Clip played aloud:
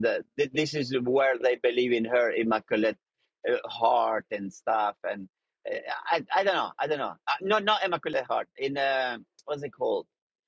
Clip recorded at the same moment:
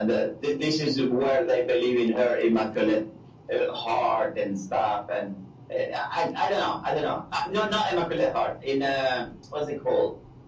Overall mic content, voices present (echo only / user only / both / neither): echo only